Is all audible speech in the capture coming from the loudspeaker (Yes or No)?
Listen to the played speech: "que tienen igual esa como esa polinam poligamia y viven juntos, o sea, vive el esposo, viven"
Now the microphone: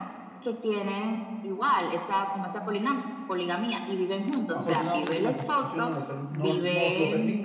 No